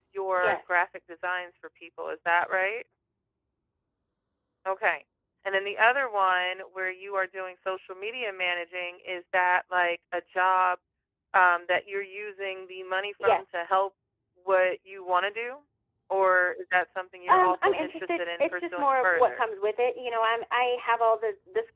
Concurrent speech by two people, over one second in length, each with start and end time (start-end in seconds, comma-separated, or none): 17.3-19.5